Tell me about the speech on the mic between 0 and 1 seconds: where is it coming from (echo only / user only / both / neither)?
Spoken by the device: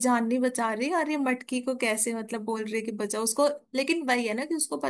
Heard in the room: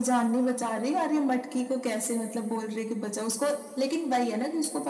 echo only